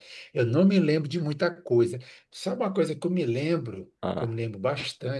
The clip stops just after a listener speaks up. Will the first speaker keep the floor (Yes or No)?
Yes